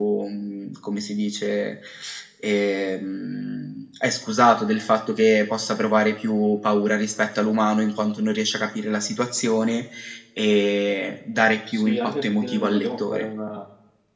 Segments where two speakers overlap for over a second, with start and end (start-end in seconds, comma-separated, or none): 11.7-13.3